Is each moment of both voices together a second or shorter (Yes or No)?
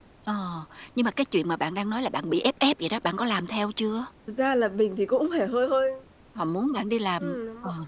Yes